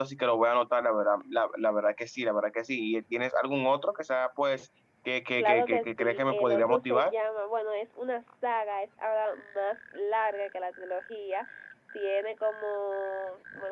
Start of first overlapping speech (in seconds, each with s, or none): 5.4 s